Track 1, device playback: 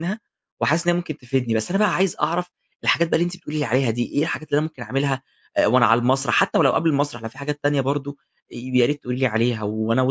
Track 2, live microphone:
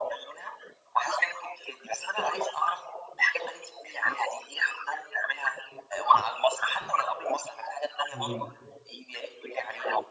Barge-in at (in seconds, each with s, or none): 8.1 s